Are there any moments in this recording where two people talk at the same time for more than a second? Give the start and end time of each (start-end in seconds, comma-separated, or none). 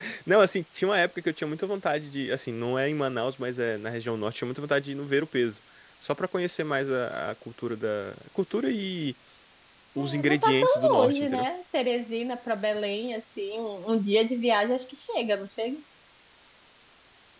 10.0-11.4